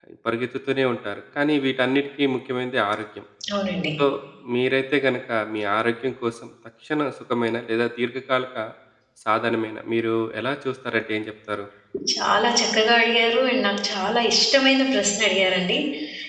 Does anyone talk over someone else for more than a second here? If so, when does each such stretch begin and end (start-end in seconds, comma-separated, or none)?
none